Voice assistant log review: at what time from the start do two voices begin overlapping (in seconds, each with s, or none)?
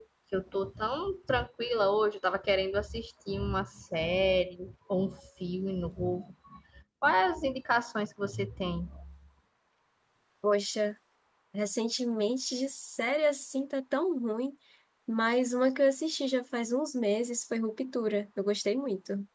none